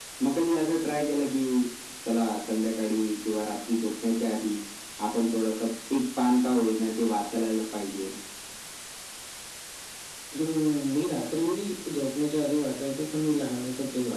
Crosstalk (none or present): none